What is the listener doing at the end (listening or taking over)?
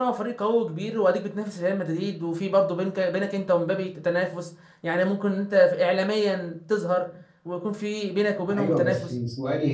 taking over